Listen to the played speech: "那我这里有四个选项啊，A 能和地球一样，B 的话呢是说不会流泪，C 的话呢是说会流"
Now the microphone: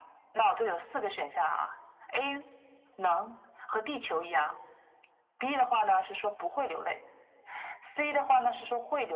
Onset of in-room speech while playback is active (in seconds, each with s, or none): none